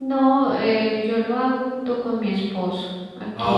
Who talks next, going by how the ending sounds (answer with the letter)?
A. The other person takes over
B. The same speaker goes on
A